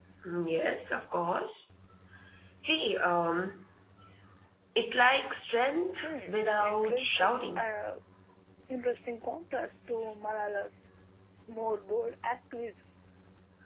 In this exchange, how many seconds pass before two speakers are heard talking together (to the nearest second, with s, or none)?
6 s